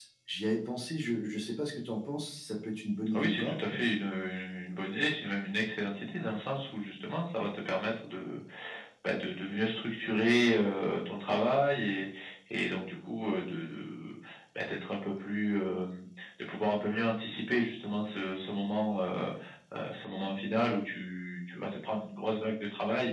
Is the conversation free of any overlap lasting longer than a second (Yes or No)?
Yes